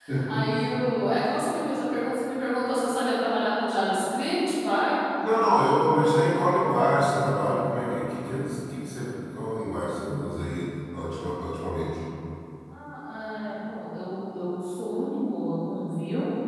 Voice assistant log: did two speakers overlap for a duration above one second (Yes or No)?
No